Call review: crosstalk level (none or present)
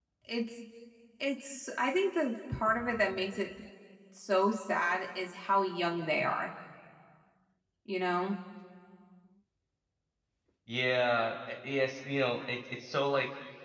none